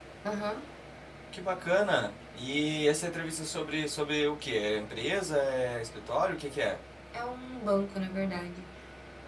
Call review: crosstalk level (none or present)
none